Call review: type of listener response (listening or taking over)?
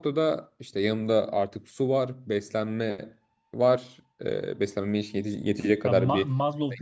taking over